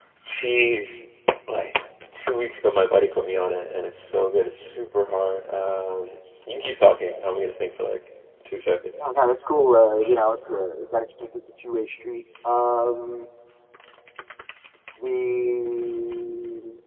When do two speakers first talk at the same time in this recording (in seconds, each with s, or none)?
none